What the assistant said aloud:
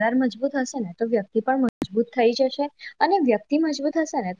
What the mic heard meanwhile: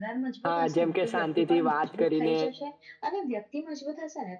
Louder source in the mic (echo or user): user